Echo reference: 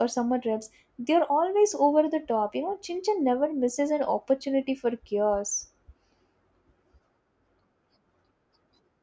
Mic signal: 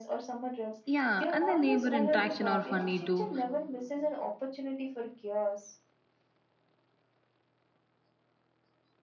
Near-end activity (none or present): present